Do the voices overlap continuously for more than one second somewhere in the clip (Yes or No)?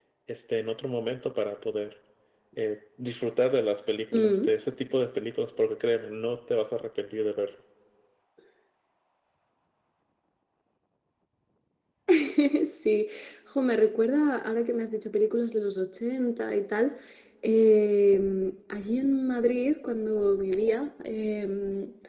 No